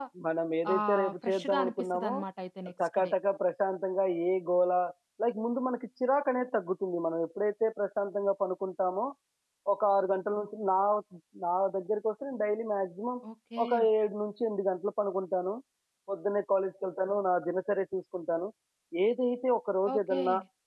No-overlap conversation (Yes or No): No